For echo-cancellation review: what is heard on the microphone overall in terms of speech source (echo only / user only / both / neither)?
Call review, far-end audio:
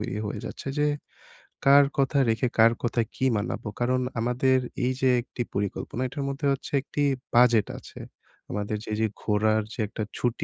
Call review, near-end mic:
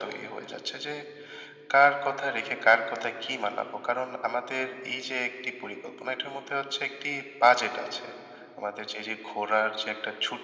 echo only